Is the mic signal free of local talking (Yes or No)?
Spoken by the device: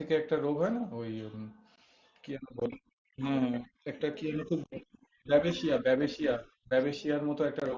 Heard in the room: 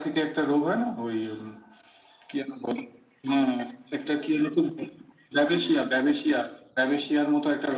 Yes